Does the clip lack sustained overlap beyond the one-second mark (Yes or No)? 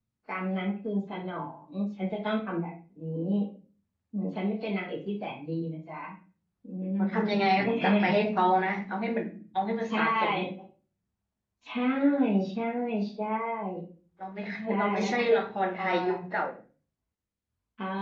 No